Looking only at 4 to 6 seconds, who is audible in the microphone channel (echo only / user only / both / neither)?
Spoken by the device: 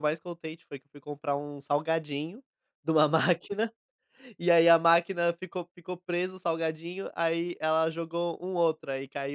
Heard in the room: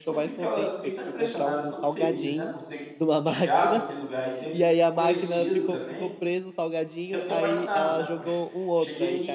both